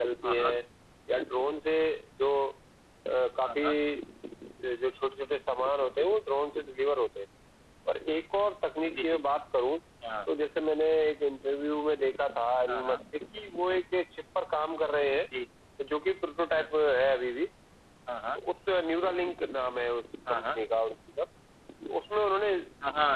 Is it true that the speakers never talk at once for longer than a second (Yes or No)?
Yes